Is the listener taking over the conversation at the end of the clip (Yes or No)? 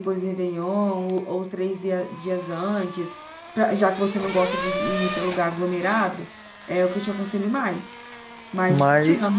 No